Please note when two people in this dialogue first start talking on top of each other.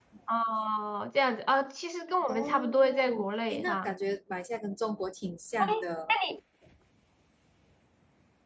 2.3 s

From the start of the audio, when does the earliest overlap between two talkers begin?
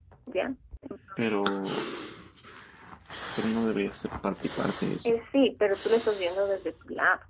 none

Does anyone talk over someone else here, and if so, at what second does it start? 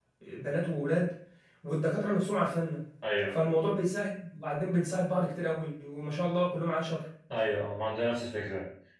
none

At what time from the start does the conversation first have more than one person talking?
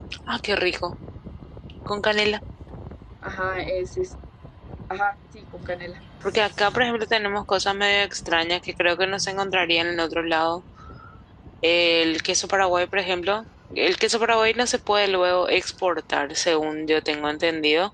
none

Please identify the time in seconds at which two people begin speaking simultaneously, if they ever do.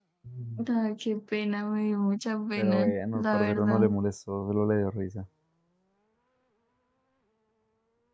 2.6 s

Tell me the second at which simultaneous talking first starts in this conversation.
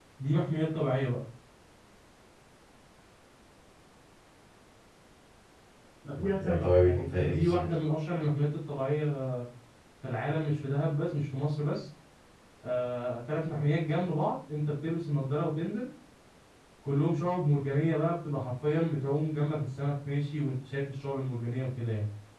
6.2 s

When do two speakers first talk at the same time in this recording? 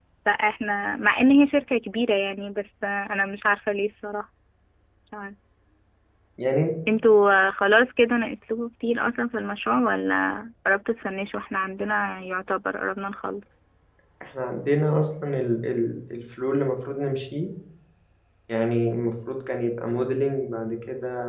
none

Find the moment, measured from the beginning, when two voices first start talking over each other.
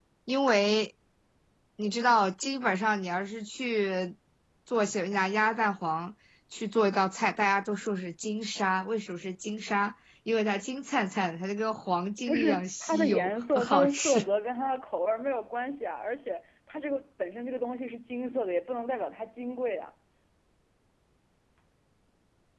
12.3 s

